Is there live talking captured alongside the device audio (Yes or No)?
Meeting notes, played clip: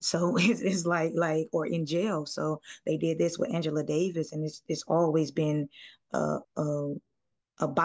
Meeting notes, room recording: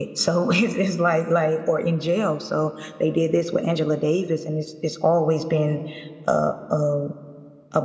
No